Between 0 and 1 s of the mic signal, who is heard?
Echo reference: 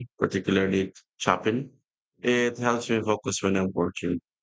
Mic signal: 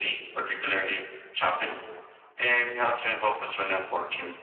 echo only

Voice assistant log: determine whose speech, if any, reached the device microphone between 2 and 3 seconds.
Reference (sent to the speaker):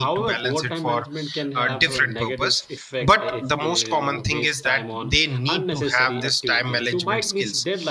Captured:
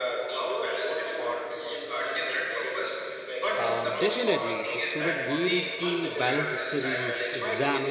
echo only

